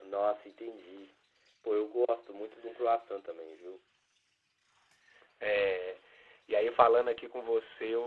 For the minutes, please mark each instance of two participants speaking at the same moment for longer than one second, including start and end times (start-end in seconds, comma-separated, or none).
none